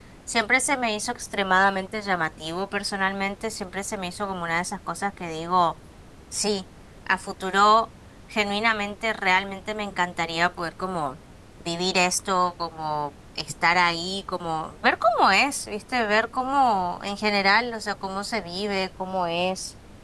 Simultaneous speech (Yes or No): No